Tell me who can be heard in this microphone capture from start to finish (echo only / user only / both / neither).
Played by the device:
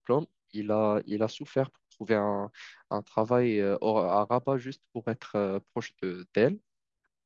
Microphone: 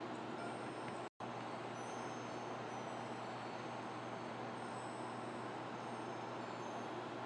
neither